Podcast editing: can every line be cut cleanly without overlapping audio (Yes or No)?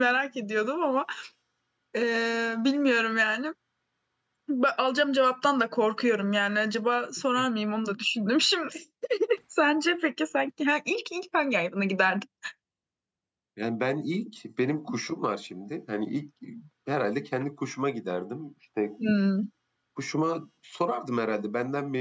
Yes